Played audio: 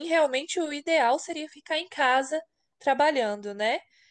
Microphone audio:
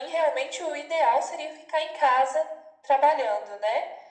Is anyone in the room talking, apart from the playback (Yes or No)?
No